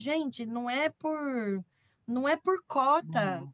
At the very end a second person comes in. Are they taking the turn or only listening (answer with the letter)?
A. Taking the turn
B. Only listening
B